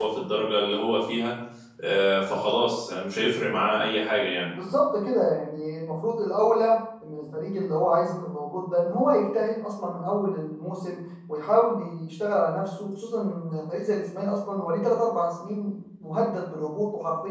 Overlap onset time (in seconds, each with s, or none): none